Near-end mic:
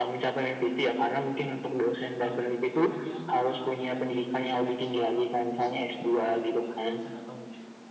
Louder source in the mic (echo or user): echo